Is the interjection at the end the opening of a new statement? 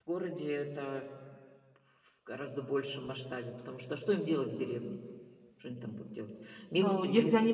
Yes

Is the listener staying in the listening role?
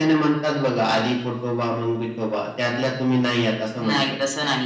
No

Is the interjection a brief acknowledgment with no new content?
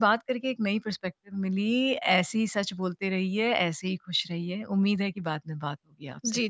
No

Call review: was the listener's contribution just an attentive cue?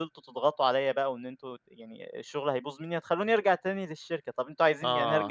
No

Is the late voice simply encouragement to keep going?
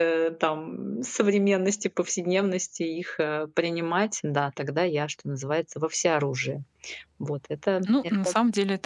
No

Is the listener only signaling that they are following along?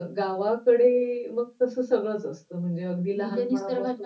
No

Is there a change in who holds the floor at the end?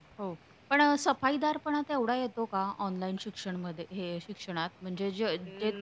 No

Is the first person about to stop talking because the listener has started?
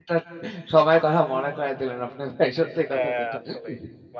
Yes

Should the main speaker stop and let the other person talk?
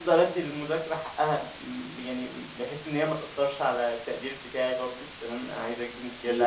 No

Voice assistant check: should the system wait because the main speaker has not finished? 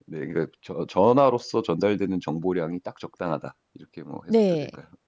No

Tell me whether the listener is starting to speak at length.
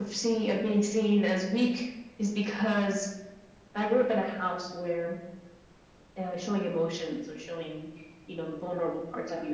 No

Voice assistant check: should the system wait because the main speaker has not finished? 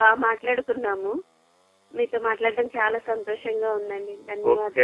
No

